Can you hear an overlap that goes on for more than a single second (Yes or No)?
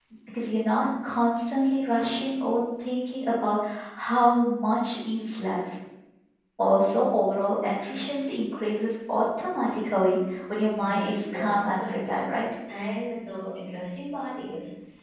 Yes